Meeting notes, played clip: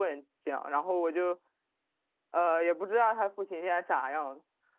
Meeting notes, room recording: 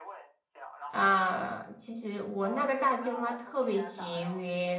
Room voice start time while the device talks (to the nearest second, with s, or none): 1 s